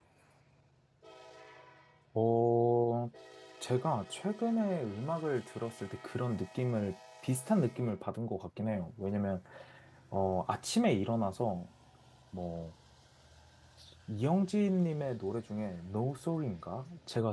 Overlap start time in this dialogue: none

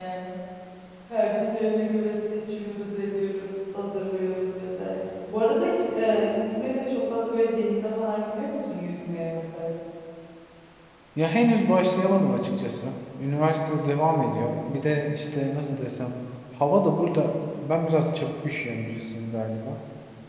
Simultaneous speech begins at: none

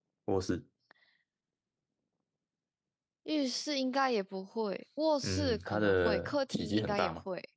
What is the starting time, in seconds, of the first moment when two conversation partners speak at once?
5.2 s

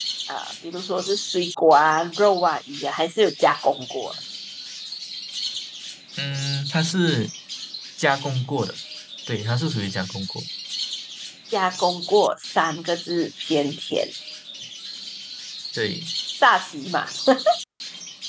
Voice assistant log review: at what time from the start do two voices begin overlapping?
none

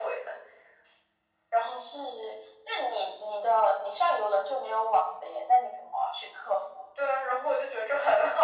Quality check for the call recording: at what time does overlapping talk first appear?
none

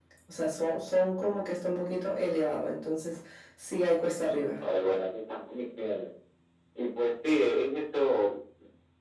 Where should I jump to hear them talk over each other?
none

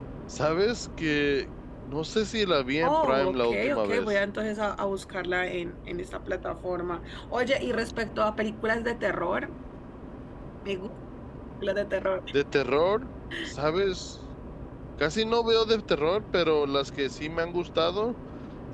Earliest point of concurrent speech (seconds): 2.8 s

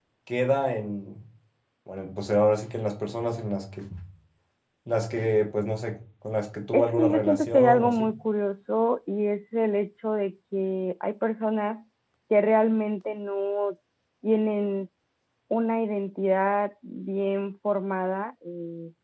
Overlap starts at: 6.7 s

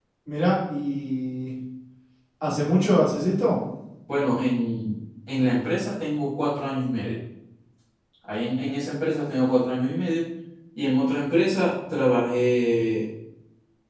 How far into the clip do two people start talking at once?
none

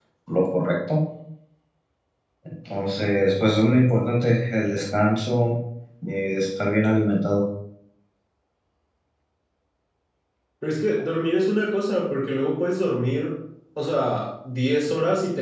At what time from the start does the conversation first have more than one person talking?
none

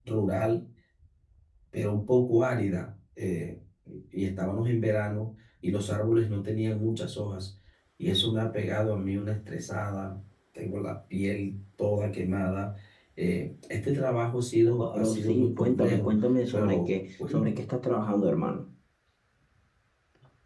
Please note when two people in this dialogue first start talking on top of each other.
14.6 s

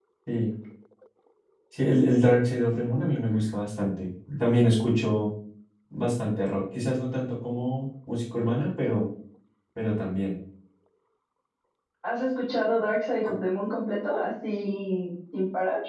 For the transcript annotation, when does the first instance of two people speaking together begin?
none

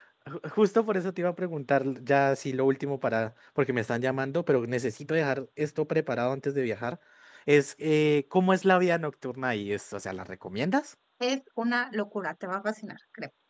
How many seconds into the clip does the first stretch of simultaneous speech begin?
none

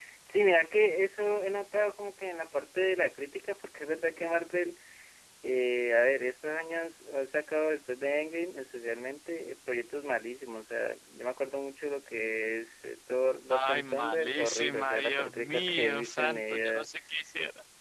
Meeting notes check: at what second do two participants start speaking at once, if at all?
13.5 s

